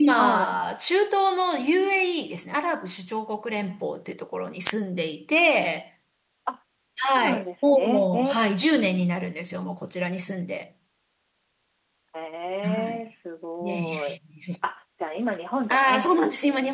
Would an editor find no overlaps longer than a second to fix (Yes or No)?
No